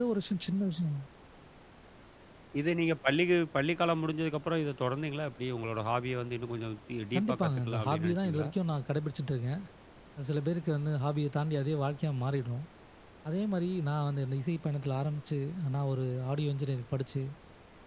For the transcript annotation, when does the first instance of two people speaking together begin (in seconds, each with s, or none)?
7.1 s